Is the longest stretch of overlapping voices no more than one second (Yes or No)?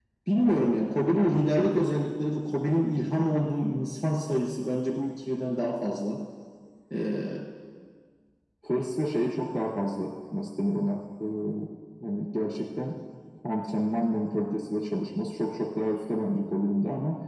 Yes